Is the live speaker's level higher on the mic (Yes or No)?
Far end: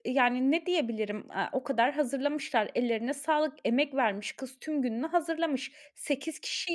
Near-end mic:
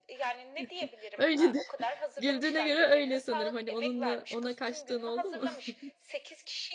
Yes